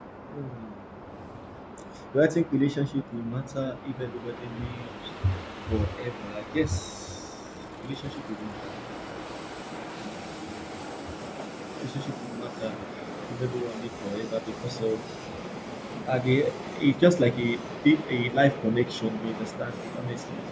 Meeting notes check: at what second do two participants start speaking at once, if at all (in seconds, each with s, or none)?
none